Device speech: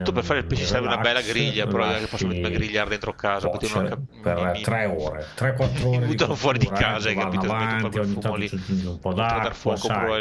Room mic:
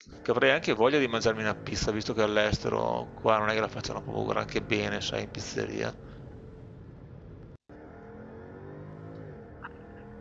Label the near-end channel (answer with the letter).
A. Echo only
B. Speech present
B